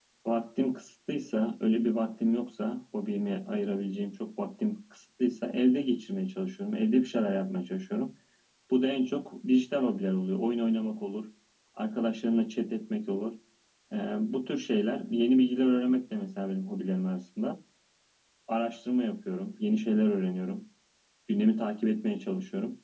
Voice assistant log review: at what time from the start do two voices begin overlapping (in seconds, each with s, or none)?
none